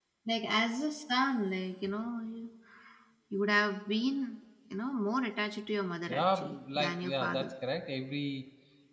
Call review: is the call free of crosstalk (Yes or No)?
No